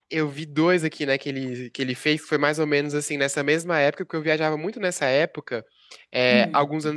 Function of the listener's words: listening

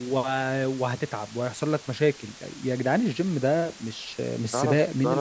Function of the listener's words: taking over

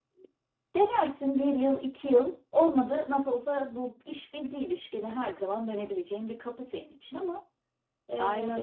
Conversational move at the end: taking over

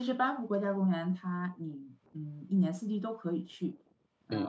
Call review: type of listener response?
listening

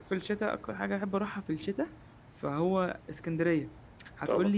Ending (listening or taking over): listening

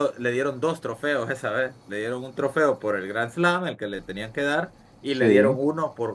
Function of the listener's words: listening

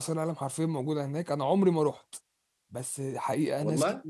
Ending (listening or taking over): listening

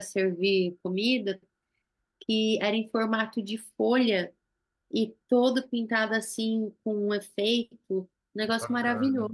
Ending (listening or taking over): taking over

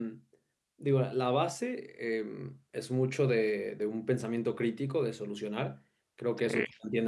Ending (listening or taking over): listening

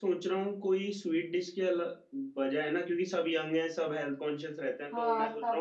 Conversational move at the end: listening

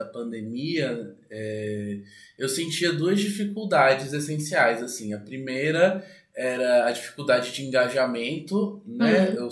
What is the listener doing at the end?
listening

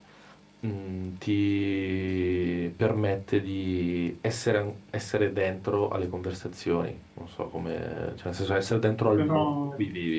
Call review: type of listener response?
listening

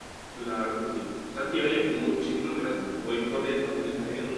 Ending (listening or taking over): listening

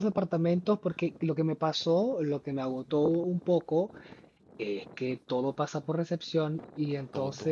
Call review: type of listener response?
listening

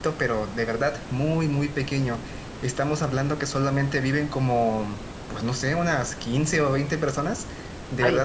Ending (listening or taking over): listening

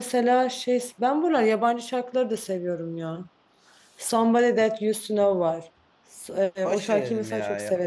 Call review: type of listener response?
taking over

